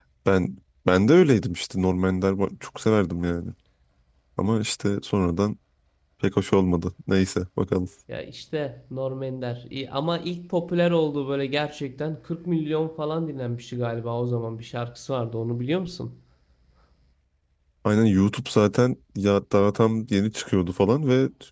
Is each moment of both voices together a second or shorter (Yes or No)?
Yes